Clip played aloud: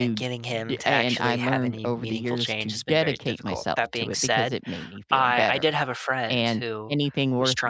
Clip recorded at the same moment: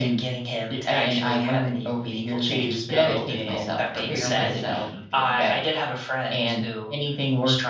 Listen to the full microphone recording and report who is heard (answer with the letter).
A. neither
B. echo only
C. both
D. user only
C